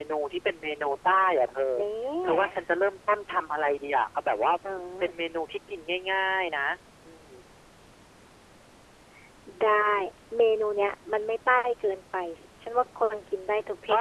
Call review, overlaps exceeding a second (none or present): none